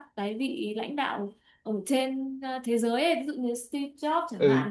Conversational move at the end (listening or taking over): listening